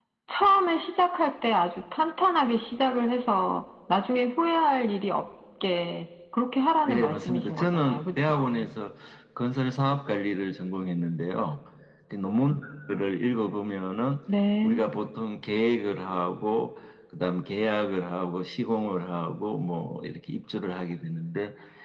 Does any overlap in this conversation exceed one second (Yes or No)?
Yes